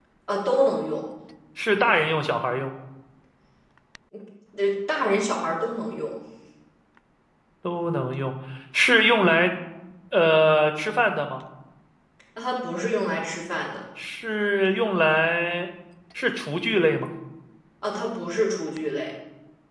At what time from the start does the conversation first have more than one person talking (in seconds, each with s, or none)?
none